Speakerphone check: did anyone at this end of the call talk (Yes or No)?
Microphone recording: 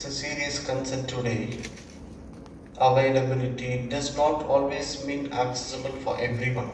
Yes